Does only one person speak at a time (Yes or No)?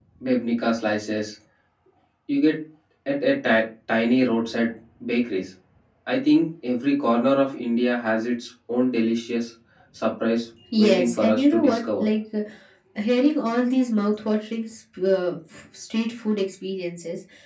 No